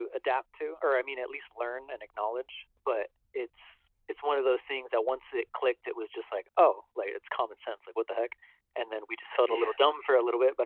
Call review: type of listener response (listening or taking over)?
listening